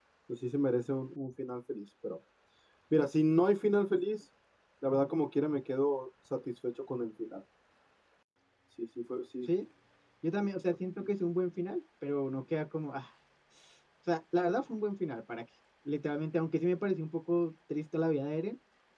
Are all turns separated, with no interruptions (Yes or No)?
Yes